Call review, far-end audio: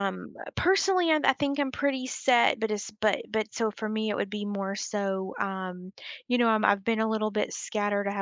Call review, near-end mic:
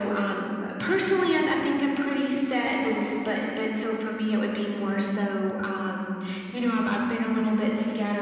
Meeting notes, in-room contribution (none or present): none